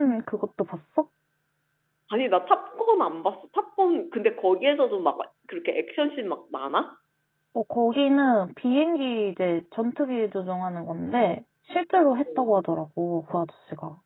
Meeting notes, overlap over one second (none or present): none